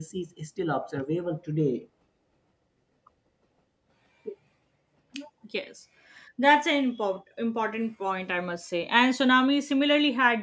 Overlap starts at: none

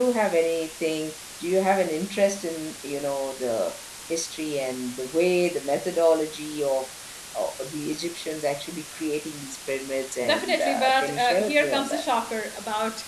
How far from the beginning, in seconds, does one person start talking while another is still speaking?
10 s

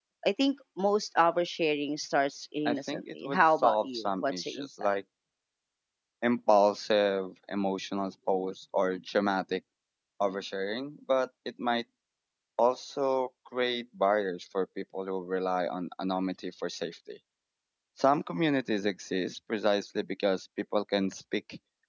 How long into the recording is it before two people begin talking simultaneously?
3 s

